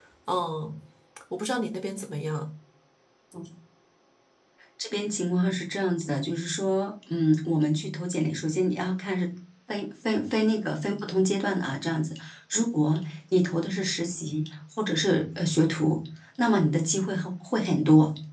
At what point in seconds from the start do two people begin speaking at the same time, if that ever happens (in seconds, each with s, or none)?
none